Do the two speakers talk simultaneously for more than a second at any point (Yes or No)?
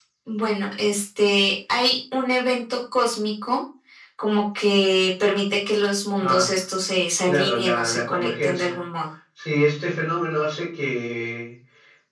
Yes